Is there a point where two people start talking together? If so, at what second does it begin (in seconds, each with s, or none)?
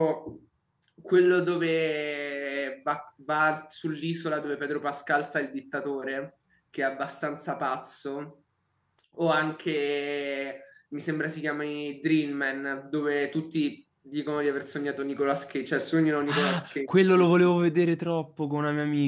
16.2 s